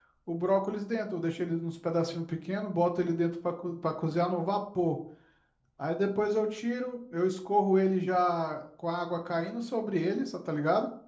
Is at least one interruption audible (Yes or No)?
No